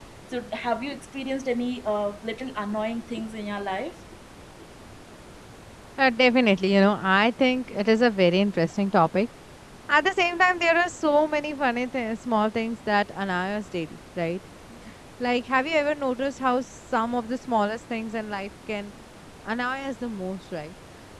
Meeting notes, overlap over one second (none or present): none